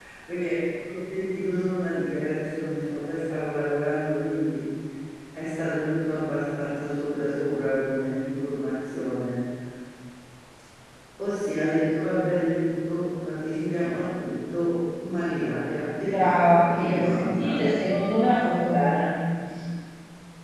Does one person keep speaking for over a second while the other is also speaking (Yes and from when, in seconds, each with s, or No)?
Yes, from 16.1 s